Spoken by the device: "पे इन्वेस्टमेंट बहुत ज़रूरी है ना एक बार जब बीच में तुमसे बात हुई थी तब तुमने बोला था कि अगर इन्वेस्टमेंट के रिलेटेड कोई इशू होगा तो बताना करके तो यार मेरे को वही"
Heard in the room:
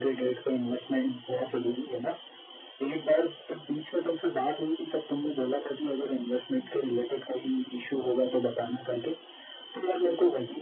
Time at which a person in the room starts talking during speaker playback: none

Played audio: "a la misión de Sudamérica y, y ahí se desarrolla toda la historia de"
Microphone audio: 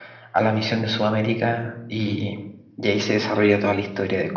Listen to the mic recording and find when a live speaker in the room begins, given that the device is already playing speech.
none

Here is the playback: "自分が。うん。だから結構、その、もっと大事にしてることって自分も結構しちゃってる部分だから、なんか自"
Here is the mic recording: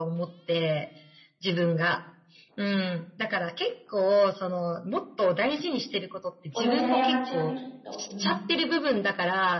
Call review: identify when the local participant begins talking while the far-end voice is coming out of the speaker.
6.5 s

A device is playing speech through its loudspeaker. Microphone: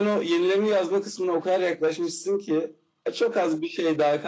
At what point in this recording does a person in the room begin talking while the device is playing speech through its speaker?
none

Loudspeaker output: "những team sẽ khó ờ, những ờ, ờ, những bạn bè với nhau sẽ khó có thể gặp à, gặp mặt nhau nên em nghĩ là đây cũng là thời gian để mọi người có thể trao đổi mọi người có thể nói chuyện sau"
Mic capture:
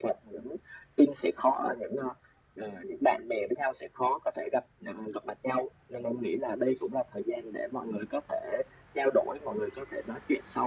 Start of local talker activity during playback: none

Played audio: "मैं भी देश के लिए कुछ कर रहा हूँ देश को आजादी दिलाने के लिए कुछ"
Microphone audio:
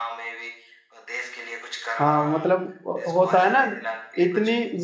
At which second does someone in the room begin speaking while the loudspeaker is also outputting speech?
2.0 s

